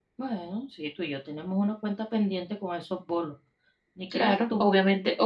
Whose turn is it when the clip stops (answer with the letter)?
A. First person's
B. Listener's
B